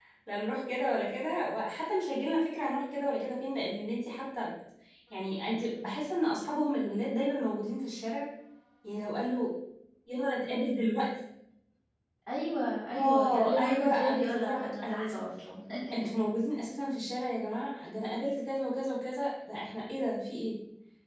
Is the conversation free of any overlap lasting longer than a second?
No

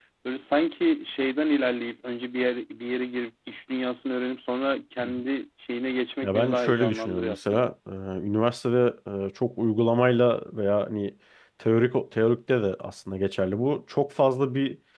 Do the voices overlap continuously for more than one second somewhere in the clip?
Yes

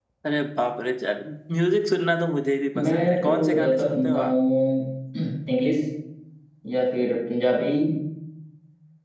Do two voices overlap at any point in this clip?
Yes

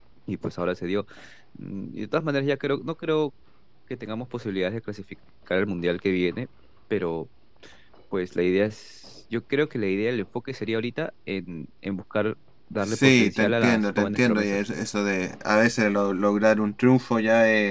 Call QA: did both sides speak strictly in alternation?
No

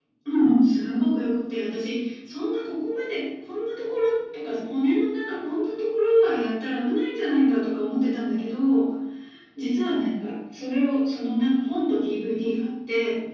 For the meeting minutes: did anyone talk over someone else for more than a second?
No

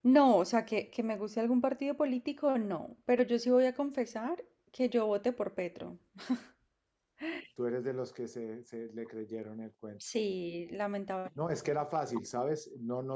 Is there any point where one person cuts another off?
No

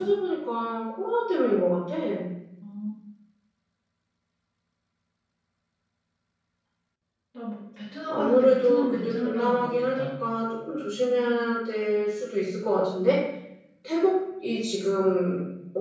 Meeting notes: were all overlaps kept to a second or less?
No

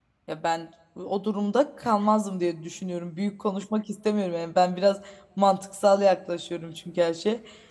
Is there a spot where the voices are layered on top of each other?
No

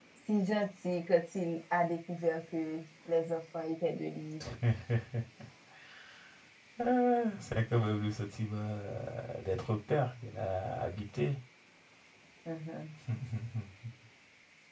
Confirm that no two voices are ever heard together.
Yes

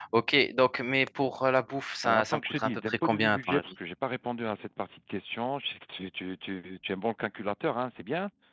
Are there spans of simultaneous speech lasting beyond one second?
Yes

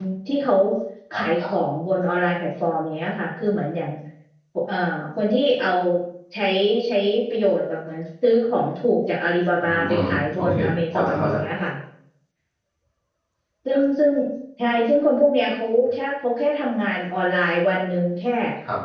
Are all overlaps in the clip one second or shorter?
No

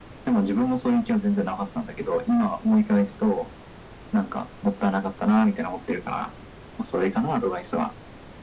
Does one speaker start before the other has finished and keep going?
No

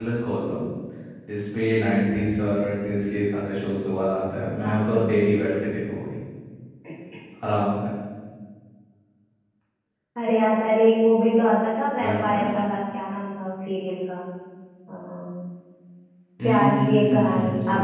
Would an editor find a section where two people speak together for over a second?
Yes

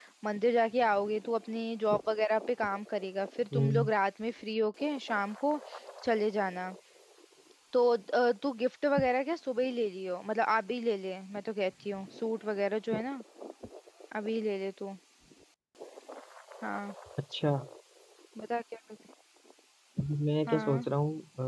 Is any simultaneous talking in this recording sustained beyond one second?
No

